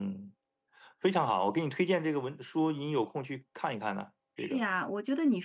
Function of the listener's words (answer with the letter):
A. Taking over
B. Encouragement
A